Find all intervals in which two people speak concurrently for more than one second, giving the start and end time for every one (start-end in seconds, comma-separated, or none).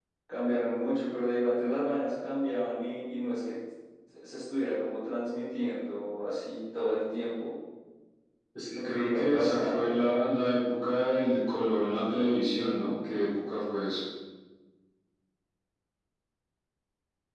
8.7-10.0